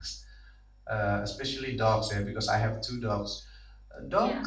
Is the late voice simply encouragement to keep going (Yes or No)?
Yes